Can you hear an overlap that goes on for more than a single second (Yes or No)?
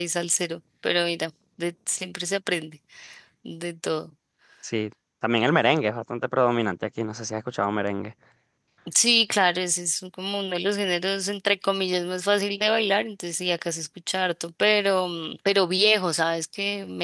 No